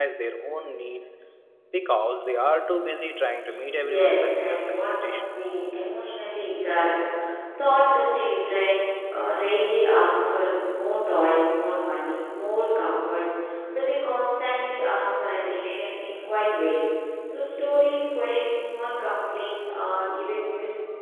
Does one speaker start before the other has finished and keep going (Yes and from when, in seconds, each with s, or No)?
Yes, from 3.7 s